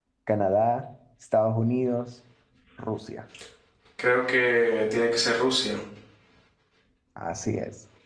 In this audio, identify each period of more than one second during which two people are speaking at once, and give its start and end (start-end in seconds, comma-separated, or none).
none